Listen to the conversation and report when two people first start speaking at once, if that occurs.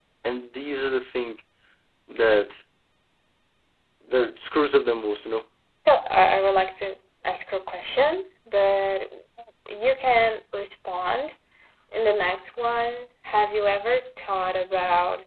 none

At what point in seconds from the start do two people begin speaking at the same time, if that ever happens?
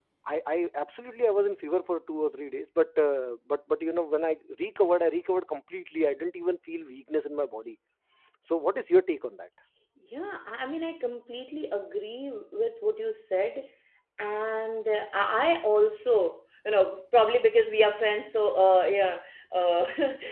none

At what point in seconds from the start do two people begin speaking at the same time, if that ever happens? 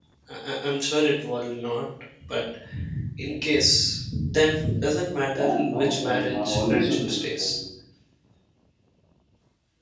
5.3 s

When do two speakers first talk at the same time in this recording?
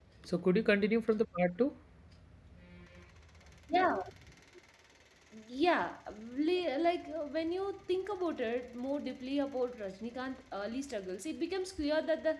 none

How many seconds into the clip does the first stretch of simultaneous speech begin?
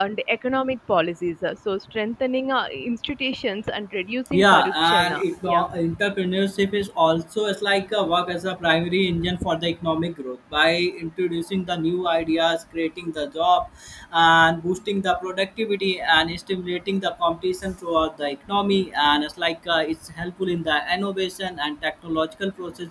4.3 s

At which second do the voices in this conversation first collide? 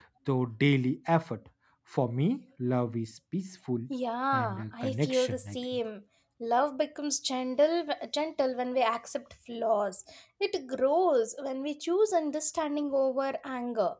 4.3 s

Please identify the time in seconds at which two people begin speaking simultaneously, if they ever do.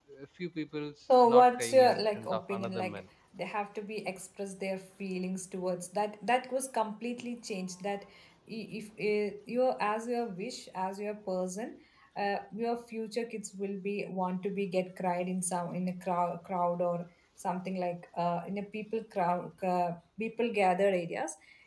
1.2 s

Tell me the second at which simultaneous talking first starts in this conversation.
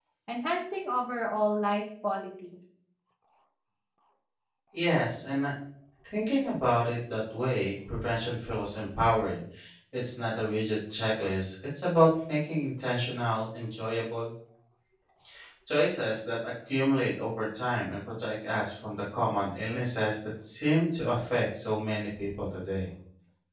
none

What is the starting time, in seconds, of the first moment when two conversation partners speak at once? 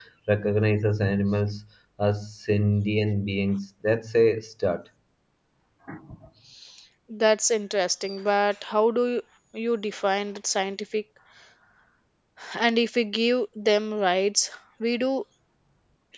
none

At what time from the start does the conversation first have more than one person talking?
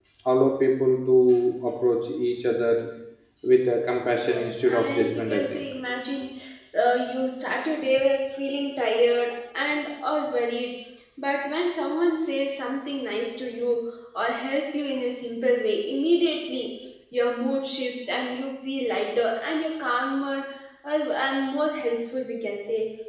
4.2 s

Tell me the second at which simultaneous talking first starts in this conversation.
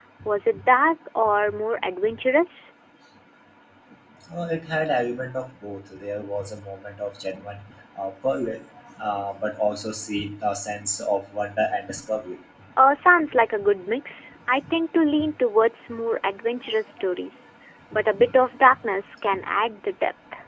none

